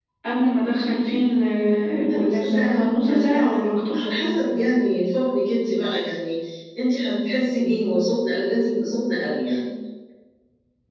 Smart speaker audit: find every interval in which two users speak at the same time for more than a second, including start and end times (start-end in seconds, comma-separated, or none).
2.1-4.0